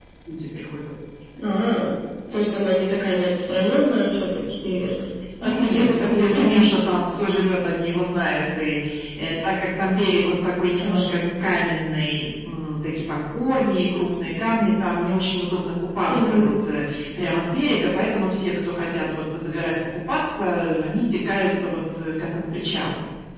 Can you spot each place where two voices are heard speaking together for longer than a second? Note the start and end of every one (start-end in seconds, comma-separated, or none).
5.4-6.8